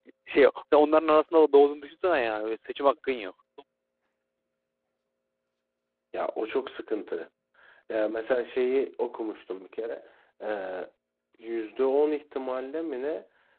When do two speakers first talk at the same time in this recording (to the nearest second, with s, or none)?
none